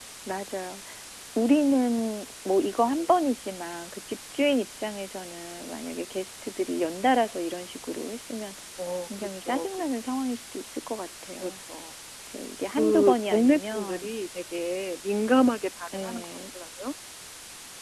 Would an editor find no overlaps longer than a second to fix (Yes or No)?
No